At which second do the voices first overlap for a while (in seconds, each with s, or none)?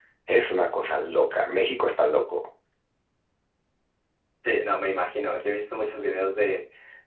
none